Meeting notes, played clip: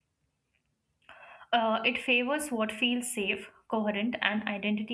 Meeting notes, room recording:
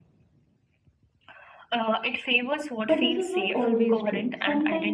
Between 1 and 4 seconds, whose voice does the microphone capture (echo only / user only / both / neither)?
both